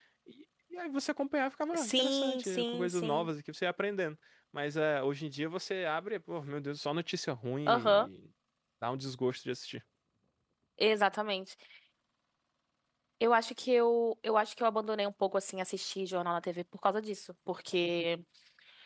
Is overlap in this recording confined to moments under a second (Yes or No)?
No